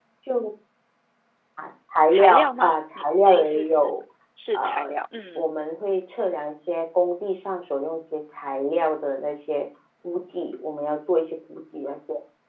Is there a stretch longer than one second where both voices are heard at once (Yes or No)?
Yes